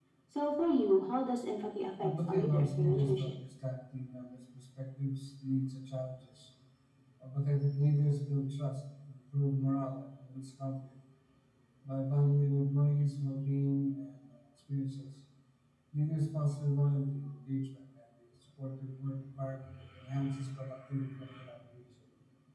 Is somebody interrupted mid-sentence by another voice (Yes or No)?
Yes